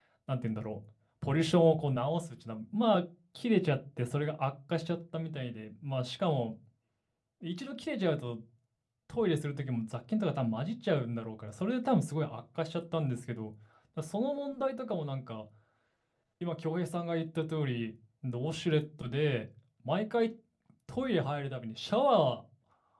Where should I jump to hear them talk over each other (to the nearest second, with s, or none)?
none